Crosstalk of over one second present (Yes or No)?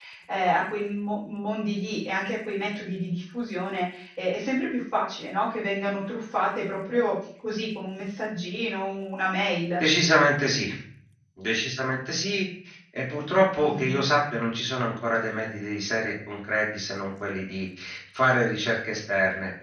No